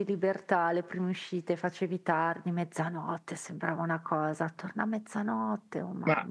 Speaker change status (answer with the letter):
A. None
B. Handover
B